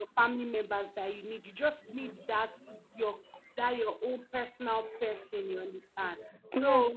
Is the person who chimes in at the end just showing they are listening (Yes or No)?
Yes